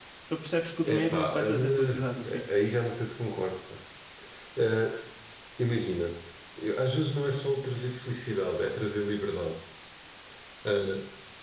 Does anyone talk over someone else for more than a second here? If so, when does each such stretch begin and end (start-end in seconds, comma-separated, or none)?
0.8-2.4